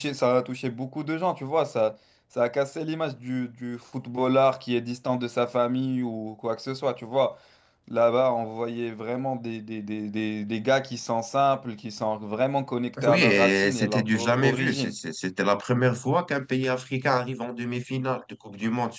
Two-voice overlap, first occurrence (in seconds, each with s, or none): 13.0 s